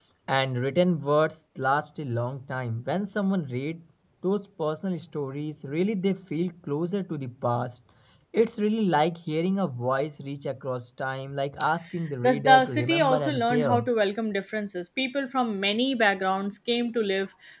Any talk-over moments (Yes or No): Yes